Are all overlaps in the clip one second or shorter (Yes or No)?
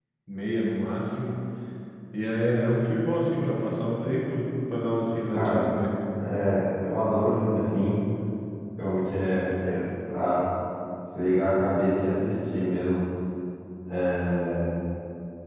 Yes